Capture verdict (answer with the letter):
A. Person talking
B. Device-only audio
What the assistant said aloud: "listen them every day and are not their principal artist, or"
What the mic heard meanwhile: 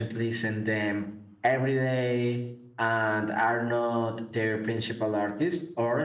B